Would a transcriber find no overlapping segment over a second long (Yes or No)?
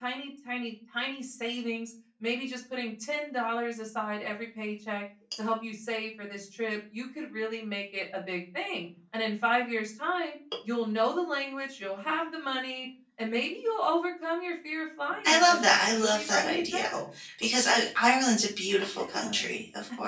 No